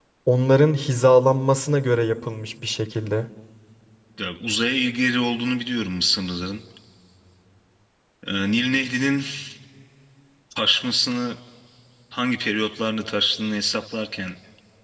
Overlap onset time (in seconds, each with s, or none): none